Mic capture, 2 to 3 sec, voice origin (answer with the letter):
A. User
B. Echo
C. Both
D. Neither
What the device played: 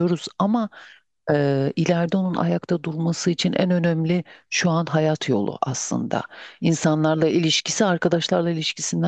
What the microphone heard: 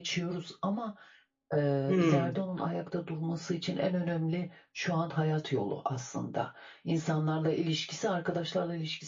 C